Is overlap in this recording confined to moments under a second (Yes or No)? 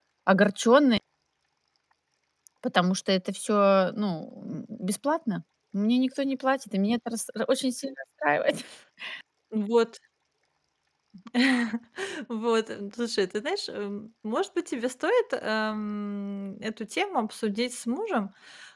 Yes